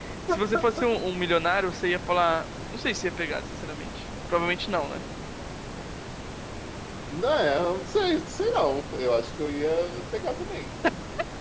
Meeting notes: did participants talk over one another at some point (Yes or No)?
No